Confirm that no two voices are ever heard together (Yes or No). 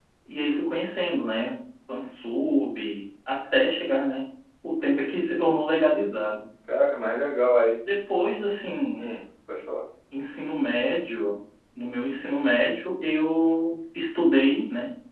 Yes